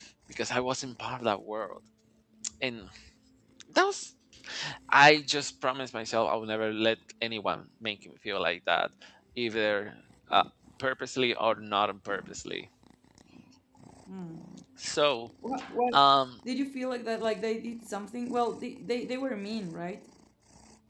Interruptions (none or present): none